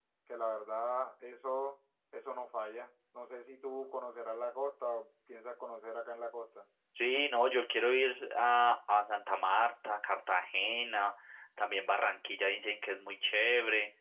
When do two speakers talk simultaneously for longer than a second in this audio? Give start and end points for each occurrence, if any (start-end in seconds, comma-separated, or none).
none